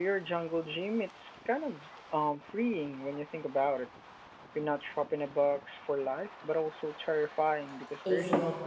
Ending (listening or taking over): taking over